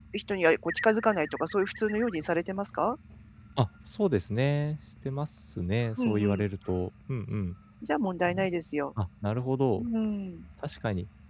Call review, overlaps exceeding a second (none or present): none